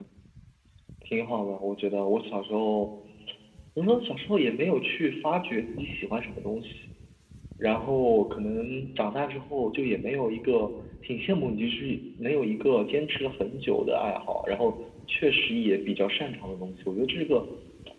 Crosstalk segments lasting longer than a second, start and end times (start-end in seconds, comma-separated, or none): none